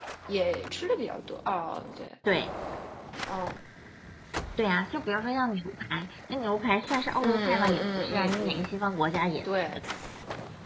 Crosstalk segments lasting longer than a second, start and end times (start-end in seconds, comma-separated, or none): 7.2-8.7